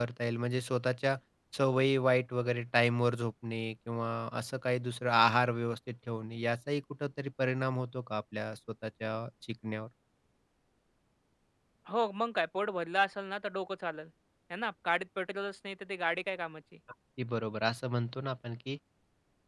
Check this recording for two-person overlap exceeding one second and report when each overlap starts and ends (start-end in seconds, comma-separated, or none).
none